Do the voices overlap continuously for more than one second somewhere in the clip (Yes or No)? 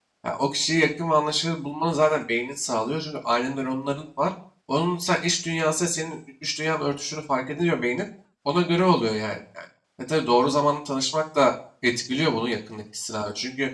No